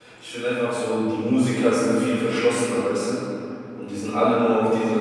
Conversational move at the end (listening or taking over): listening